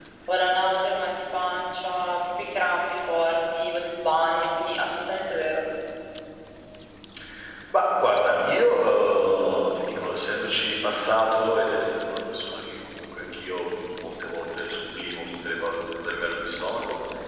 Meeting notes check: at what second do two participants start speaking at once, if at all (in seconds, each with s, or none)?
none